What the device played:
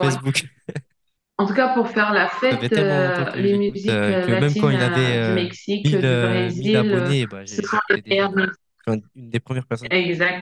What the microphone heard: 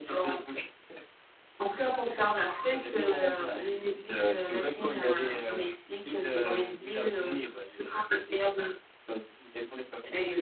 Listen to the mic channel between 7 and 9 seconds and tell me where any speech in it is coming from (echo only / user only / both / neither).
echo only